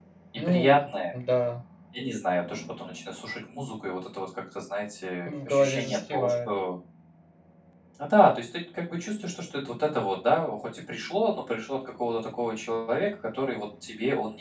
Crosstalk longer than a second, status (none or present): present